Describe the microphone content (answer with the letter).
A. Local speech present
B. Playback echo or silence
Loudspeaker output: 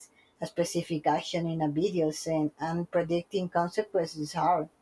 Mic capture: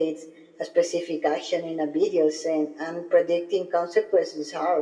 B